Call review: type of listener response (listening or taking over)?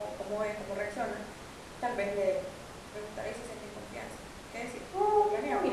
taking over